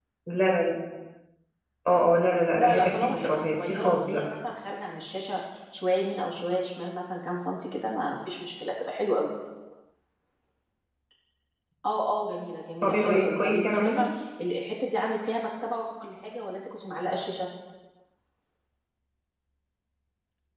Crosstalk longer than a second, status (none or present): present